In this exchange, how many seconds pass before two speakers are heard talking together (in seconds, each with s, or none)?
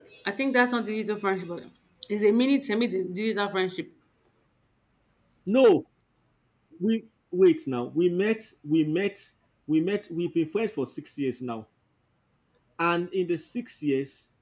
none